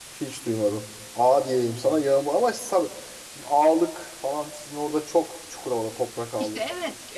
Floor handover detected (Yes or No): Yes